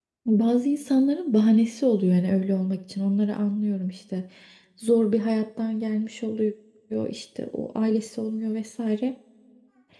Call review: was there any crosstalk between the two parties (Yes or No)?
No